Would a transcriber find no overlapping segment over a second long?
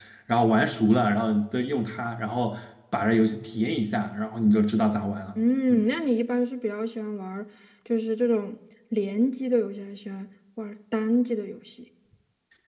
Yes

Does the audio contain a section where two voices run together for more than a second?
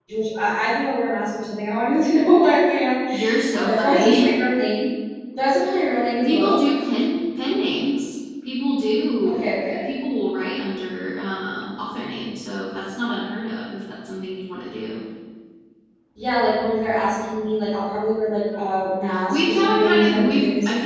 Yes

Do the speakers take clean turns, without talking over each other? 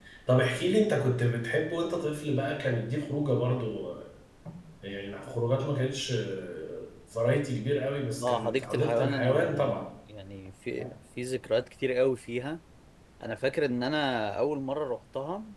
No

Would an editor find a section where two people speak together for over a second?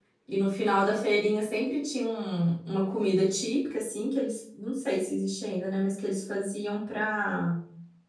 No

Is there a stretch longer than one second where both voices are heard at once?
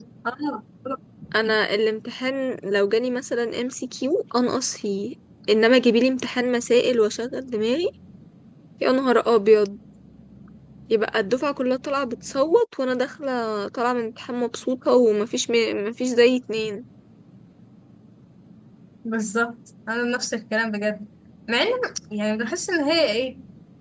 No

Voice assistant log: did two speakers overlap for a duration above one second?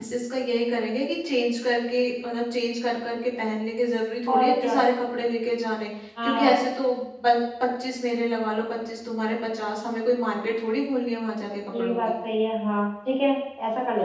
No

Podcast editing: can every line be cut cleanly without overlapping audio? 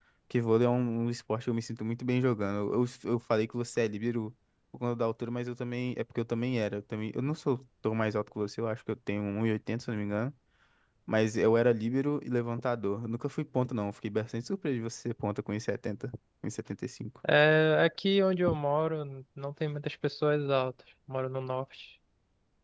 Yes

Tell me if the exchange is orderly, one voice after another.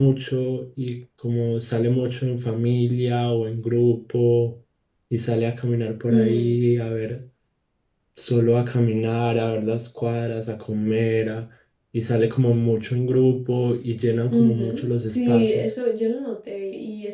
No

